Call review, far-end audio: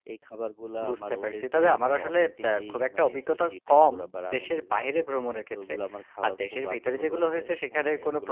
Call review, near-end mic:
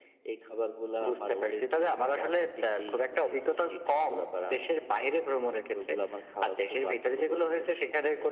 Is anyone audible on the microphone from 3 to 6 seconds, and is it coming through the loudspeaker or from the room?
echo only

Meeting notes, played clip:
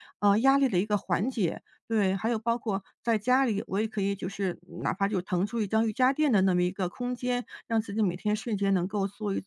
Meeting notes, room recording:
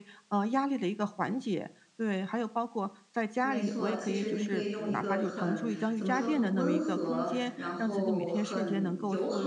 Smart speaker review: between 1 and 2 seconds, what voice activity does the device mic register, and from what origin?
echo only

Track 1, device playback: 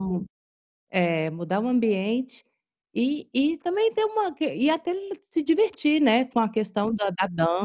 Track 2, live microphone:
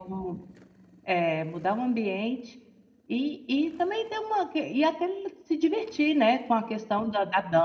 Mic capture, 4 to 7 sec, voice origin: echo only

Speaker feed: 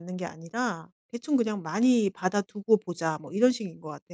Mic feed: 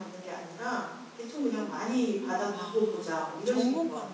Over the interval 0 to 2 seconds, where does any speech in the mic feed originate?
echo only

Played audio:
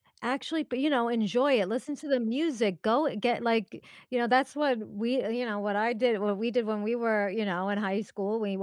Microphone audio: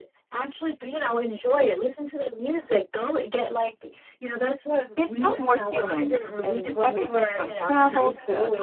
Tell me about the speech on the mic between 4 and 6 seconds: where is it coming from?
both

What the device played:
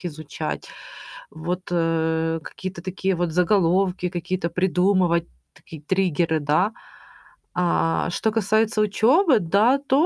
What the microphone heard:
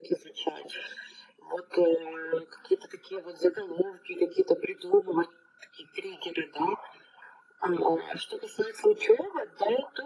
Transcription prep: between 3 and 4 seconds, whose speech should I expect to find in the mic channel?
echo only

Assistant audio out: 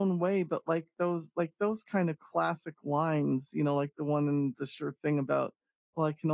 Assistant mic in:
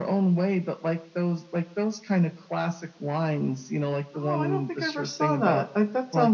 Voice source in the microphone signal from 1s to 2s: echo only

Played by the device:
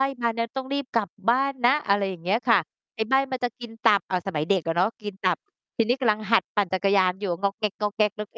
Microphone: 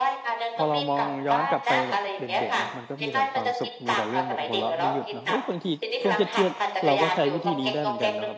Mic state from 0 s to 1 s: both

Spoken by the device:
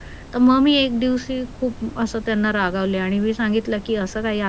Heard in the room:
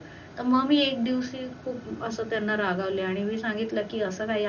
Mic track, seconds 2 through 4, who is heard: echo only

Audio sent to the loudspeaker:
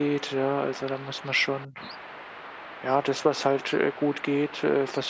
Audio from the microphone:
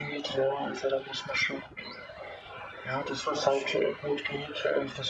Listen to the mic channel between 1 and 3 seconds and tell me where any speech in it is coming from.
echo only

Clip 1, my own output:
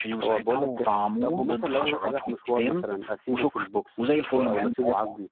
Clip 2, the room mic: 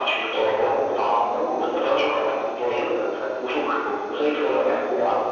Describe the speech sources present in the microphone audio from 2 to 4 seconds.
echo only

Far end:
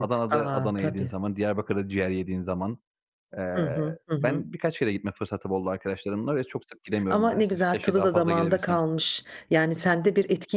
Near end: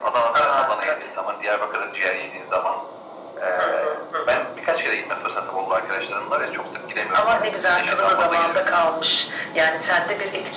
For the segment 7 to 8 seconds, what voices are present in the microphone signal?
echo only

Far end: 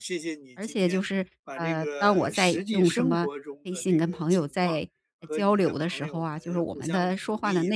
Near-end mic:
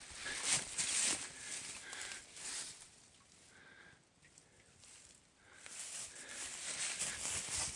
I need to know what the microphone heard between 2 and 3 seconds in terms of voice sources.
neither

